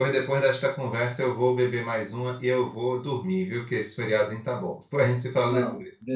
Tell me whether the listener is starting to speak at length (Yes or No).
Yes